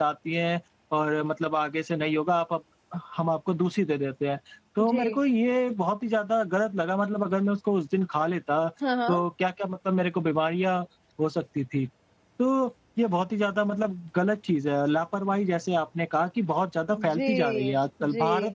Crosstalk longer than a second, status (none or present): present